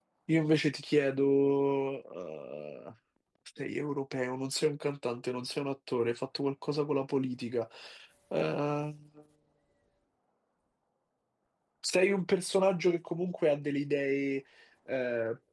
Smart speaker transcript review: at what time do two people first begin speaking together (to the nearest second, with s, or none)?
none